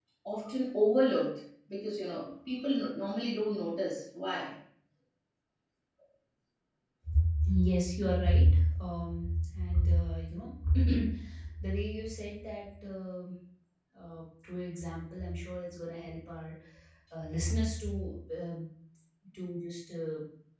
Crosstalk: none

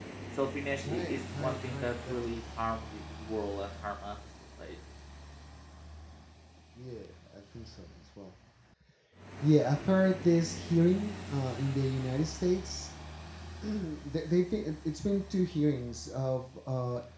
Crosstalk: present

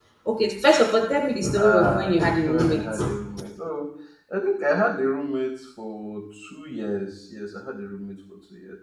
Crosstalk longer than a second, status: present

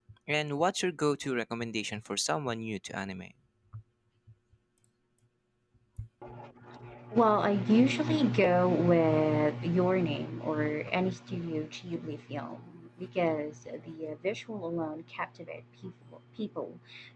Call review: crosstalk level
none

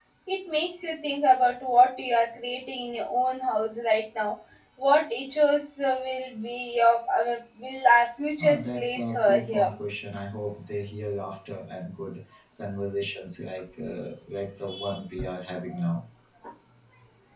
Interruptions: present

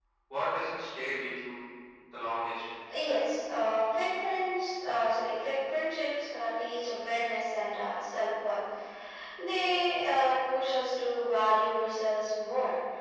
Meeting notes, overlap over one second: none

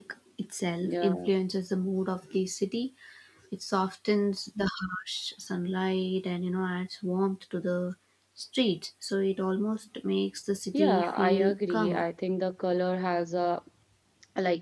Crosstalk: present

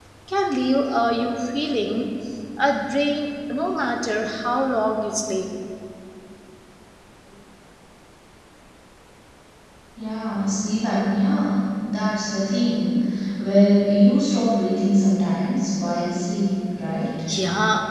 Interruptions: none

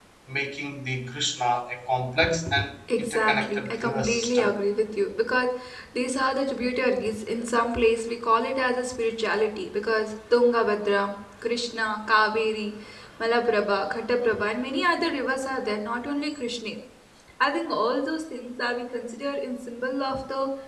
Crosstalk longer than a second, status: present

